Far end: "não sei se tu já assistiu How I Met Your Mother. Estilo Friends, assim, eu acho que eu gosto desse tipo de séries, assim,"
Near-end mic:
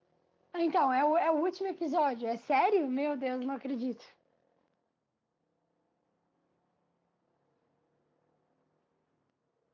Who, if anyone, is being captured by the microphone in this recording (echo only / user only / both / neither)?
user only